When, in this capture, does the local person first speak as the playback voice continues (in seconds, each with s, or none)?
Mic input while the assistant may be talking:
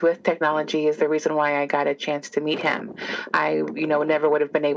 none